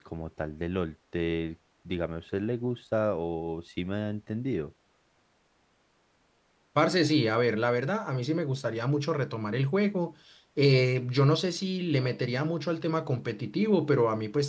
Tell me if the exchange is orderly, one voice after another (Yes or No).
Yes